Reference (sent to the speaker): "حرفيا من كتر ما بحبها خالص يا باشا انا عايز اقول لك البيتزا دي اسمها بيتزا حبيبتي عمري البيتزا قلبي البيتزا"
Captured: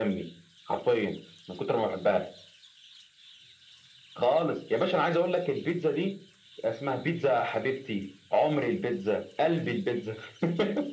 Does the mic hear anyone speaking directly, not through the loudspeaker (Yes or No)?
No